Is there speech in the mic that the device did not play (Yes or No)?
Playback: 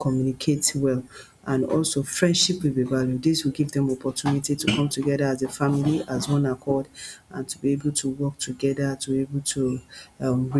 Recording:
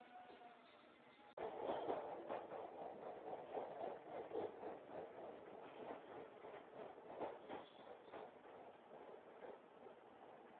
No